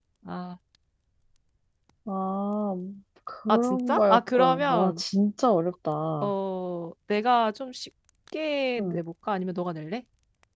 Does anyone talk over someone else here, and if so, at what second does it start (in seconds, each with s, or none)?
3.5 s